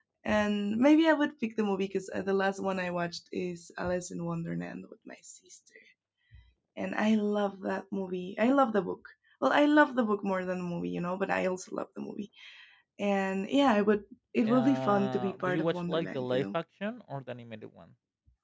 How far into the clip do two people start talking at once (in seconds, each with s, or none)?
14.4 s